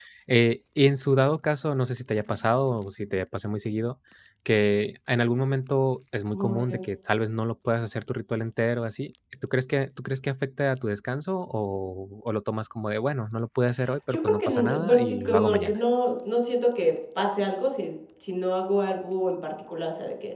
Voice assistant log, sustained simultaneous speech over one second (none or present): present